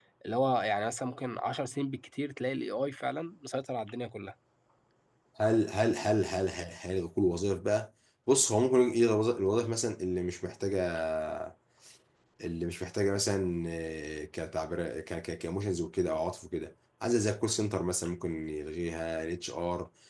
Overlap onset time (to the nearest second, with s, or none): none